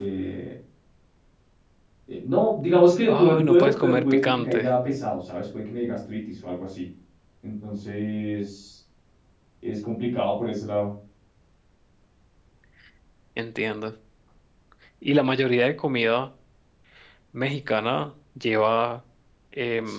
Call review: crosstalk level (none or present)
present